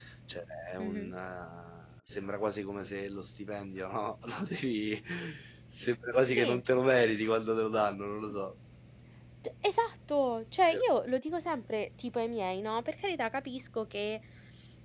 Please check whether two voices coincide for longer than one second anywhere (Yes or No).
No